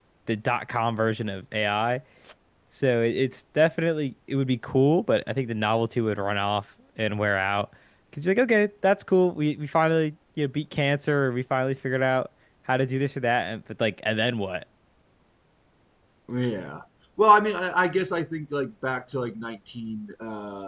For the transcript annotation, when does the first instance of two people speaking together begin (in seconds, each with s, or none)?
none